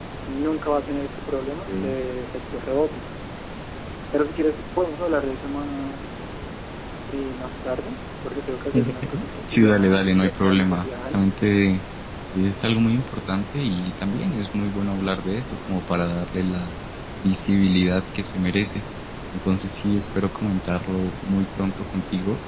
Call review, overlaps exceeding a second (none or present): present